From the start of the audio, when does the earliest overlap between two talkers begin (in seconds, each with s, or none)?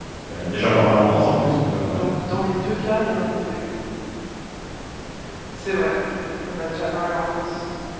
none